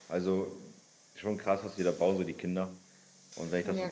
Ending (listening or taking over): listening